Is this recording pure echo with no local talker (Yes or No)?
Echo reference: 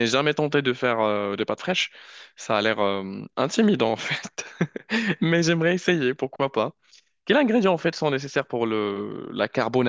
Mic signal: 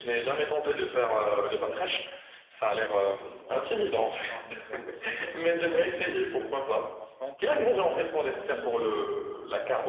No